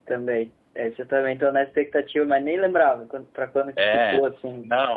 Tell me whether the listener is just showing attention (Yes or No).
No